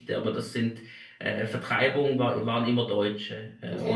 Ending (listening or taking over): taking over